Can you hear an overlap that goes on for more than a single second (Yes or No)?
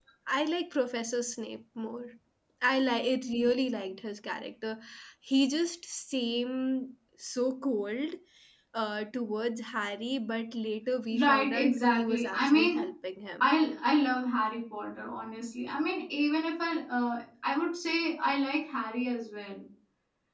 Yes